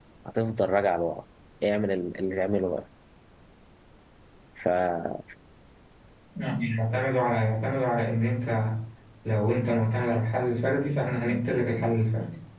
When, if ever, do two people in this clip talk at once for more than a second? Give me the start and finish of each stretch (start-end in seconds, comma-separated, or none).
none